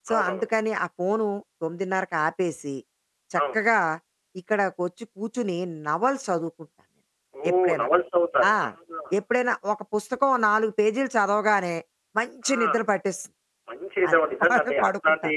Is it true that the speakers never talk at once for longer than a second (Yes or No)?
No